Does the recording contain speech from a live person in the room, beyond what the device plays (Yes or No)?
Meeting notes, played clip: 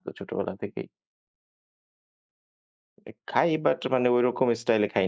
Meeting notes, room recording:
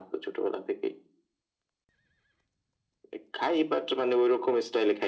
No